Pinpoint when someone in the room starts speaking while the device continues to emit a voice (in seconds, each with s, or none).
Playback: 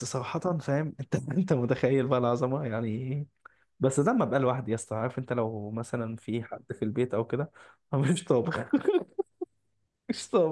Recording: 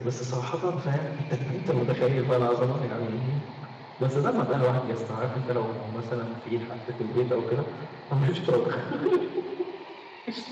none